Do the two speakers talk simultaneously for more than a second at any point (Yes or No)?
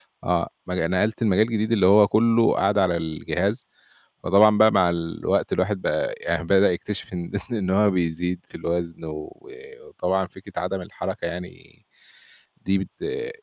No